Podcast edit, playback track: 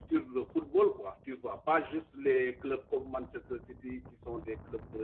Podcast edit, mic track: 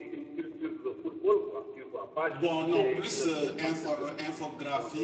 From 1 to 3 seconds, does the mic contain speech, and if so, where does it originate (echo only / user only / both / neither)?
both